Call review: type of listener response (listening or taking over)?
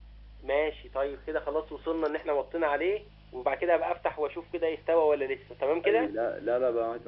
taking over